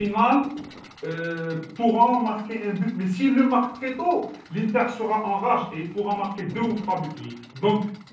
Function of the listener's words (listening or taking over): listening